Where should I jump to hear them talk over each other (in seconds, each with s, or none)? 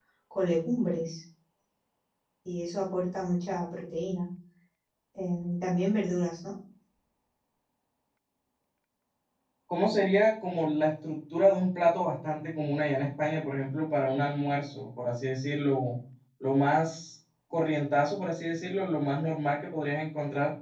none